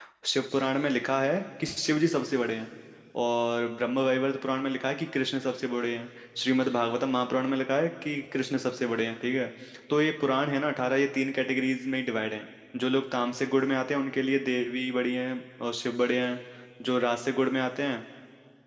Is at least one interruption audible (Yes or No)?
No